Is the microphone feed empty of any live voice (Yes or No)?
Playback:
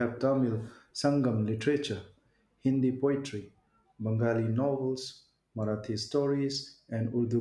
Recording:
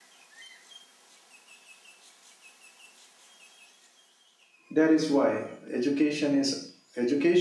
No